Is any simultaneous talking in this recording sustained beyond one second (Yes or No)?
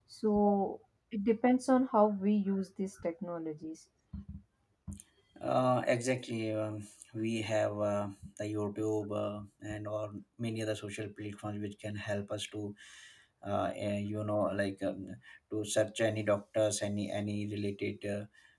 No